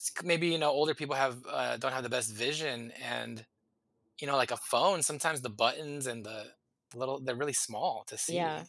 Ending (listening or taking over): taking over